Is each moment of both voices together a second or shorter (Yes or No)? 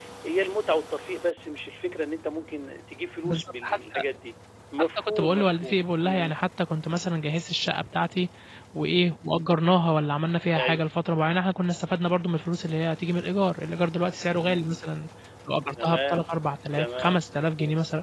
No